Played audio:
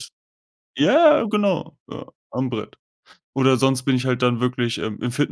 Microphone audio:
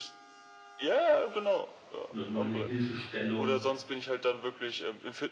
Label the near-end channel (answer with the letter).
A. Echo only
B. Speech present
B